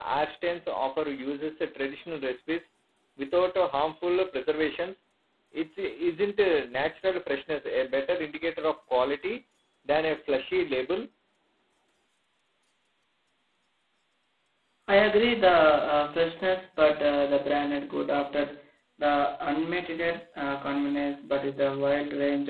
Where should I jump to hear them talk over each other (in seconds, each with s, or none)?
none